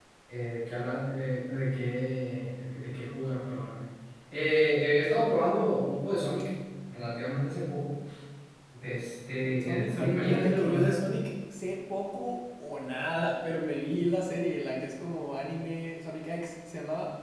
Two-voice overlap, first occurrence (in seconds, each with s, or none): 9.4 s